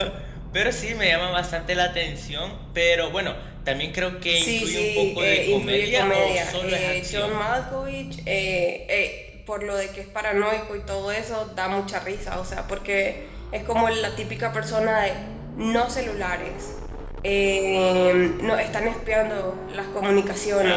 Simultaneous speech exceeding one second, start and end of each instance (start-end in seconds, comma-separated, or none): 4.3-7.4